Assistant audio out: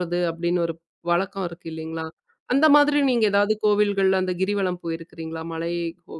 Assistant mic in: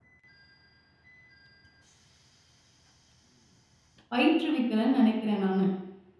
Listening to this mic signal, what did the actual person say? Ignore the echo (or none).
பயிற்றுவிக்கலன்னு நெனைக்கிறேன் நானு.